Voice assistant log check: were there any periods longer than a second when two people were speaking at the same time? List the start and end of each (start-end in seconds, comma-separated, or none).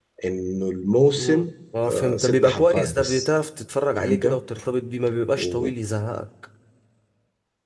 1.9-3.3